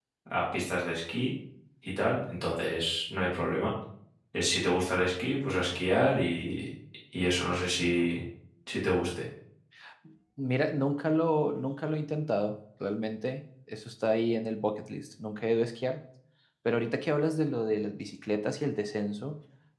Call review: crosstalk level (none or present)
none